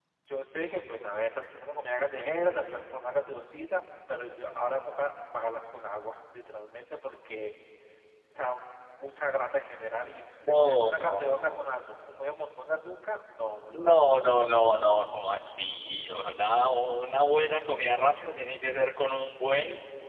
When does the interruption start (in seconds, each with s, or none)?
10.5 s